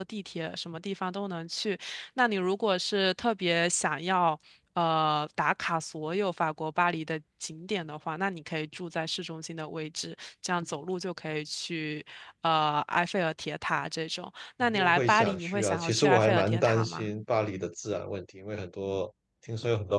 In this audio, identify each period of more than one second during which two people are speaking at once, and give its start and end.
14.6-17.1

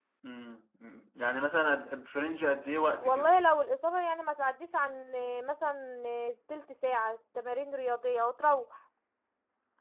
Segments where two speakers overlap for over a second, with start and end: none

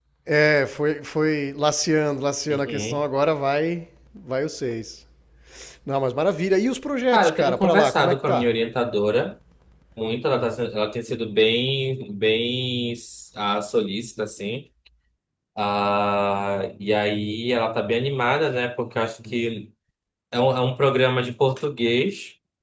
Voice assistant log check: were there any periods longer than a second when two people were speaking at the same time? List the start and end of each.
7.1-8.5

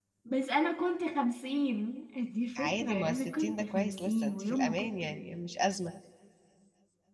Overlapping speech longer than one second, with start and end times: 2.6-5.0

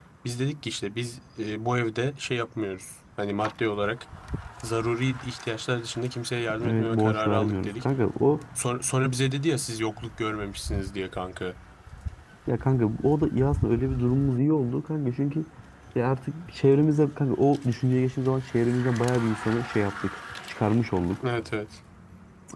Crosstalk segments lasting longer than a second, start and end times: 6.6-7.8

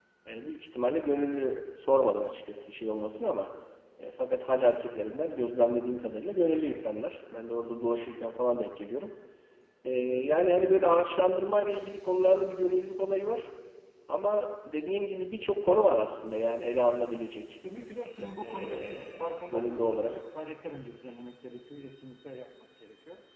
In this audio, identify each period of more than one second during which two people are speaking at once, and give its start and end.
18.4-20.2

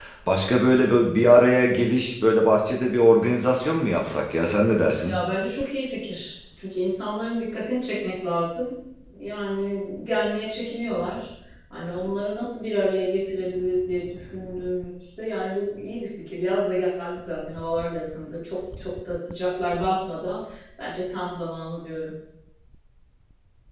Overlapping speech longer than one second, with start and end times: none

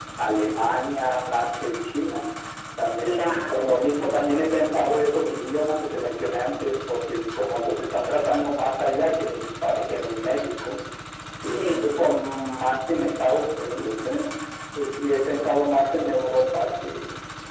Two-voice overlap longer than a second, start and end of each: 3.0-4.4

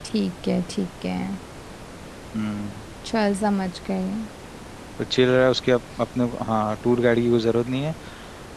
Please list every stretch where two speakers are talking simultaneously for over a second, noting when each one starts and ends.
none

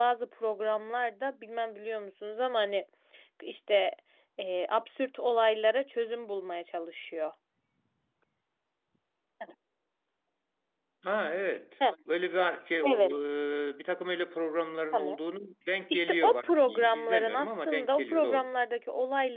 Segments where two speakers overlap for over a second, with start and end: 15.9-18.5

